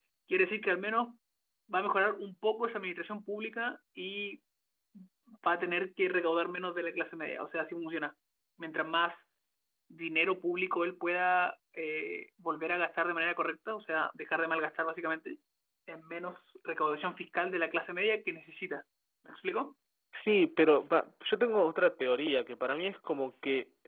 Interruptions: none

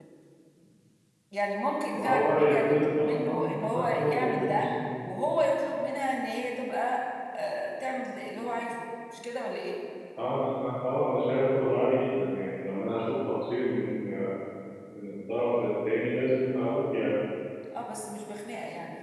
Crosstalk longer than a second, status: present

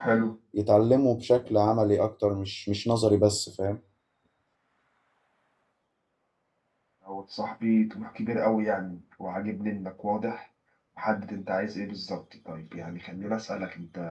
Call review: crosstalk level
none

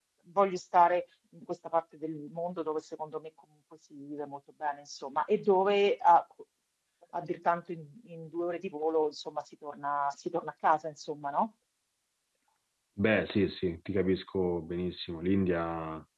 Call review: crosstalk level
none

